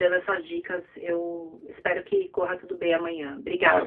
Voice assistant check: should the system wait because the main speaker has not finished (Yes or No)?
No